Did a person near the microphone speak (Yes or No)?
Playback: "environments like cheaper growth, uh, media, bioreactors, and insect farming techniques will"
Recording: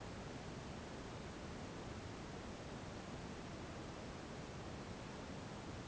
No